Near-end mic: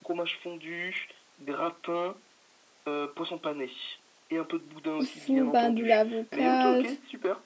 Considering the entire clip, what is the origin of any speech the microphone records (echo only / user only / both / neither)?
both